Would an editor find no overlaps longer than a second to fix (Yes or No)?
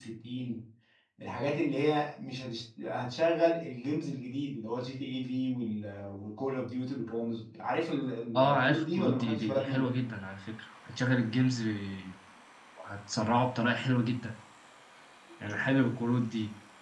No